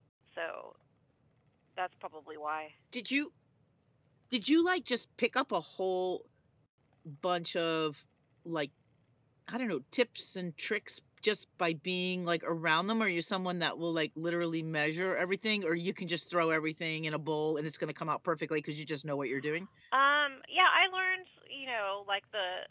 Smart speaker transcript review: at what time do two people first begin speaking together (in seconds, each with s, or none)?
none